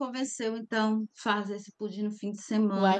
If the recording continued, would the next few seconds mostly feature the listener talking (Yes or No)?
Yes